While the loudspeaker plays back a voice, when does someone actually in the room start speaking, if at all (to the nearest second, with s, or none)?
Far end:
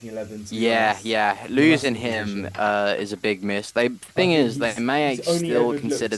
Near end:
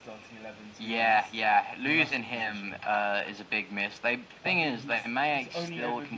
none